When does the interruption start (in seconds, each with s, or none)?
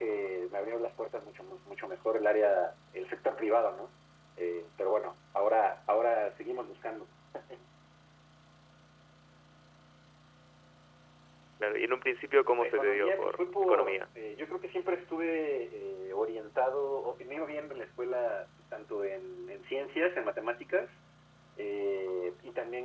12.6 s